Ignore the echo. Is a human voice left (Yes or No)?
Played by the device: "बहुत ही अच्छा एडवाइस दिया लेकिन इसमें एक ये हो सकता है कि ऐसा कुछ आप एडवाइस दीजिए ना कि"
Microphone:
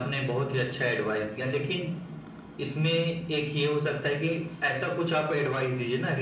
No